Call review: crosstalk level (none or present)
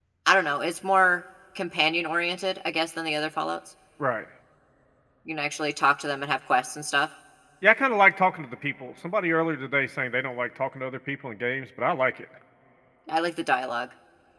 none